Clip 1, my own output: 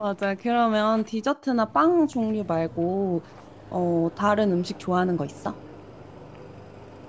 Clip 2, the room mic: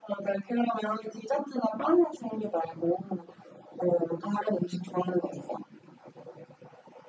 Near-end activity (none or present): none